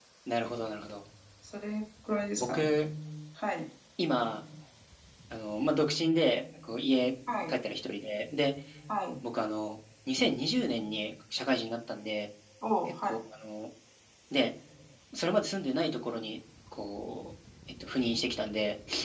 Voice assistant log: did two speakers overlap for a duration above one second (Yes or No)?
No